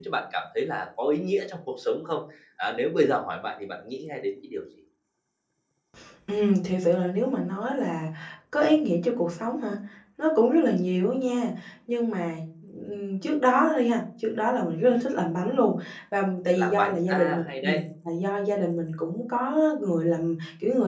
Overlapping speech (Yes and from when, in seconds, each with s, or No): Yes, from 16.6 s